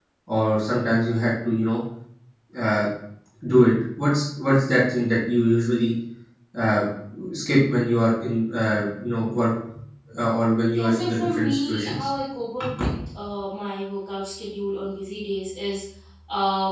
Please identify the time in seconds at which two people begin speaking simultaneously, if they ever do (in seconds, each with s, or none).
10.8 s